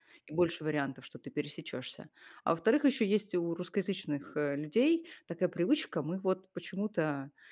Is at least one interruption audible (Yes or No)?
No